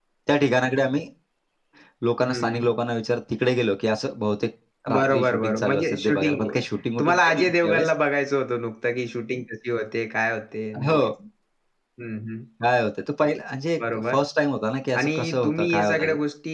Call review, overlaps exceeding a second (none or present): present